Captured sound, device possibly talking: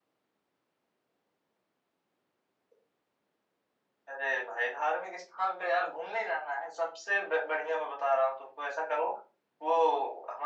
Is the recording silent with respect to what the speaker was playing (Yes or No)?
No